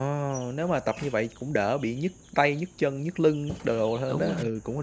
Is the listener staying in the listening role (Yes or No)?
No